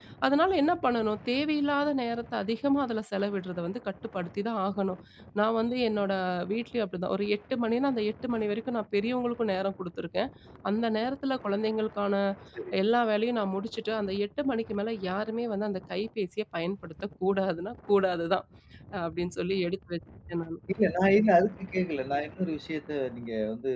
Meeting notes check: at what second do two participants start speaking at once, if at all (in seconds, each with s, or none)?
none